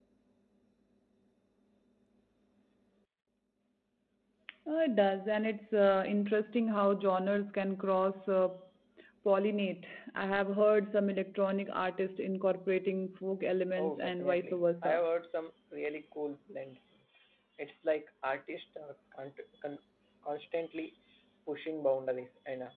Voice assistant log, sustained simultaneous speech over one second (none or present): present